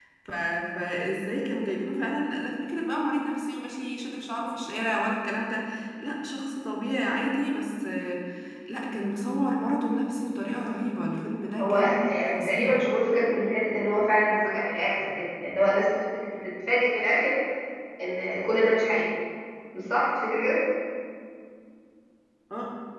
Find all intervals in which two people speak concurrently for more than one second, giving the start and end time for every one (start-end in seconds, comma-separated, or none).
11.6-12.8